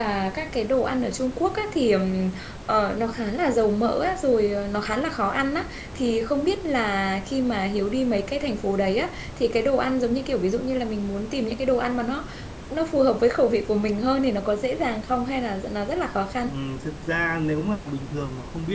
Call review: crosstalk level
none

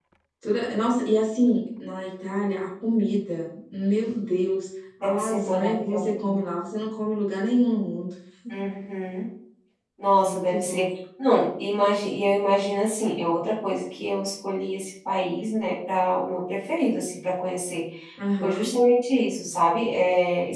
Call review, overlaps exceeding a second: present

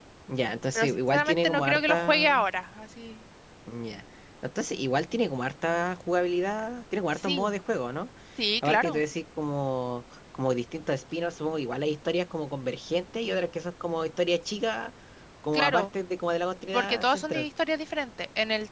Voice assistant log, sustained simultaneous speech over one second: present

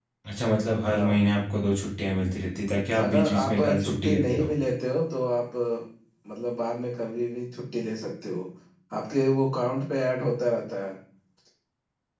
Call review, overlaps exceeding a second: present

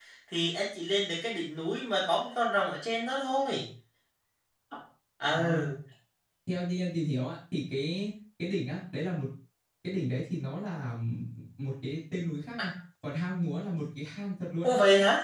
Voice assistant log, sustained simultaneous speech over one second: none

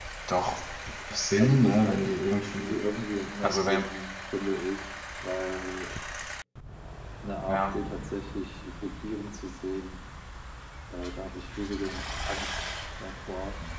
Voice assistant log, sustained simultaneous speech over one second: present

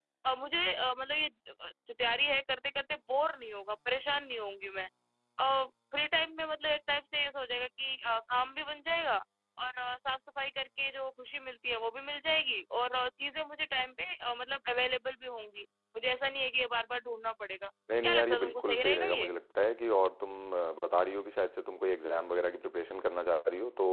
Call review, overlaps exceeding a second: present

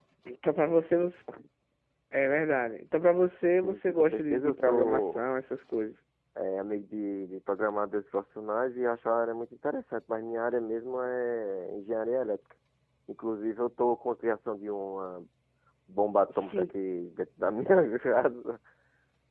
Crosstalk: present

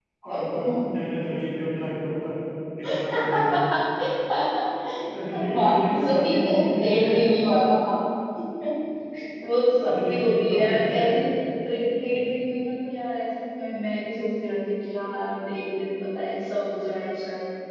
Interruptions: present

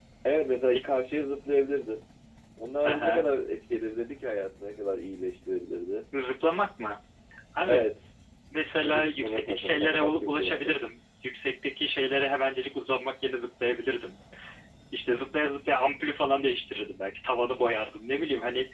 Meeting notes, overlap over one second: present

